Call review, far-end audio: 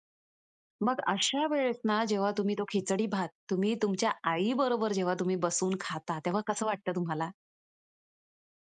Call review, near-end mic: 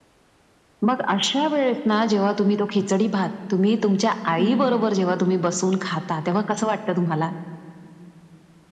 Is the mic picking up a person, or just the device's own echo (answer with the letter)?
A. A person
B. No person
A